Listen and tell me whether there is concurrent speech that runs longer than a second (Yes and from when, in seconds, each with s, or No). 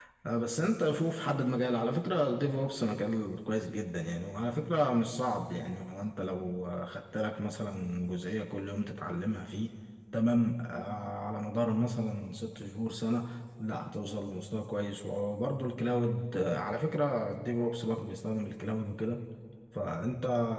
No